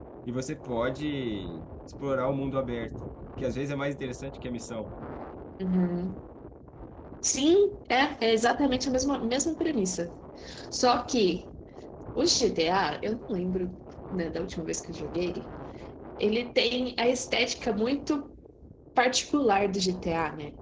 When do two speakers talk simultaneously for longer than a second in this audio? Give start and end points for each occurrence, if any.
none

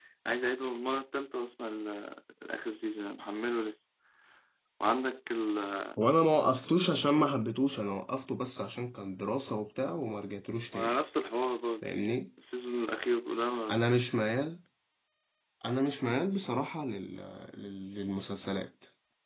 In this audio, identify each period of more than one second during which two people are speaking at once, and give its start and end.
none

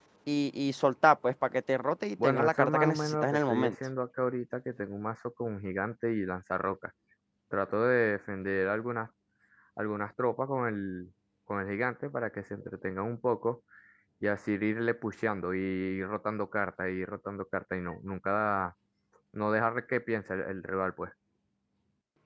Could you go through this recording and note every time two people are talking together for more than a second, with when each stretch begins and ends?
2.2-3.8

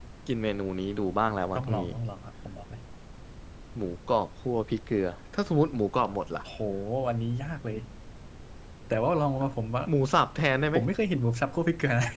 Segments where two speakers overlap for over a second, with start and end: none

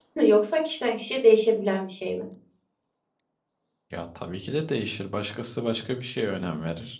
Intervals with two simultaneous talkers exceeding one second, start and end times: none

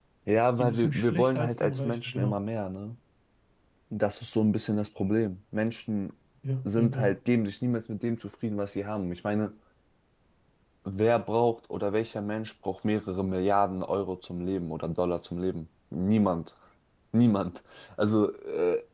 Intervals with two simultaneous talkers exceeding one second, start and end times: 0.6-2.4

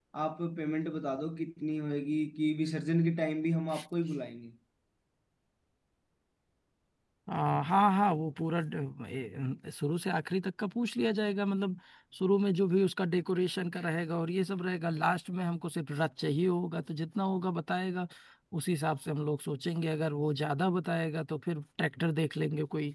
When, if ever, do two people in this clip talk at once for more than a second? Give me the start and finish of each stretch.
none

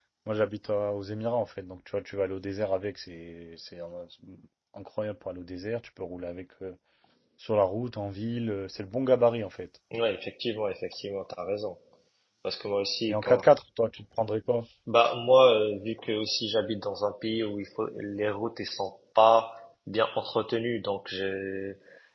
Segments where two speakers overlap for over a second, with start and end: none

